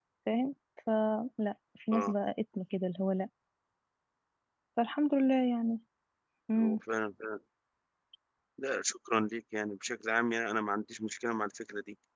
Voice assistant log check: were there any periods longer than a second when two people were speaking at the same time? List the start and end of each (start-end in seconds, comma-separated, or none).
none